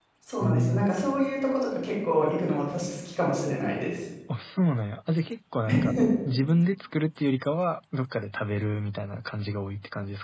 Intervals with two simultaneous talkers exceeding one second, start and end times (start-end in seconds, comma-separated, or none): none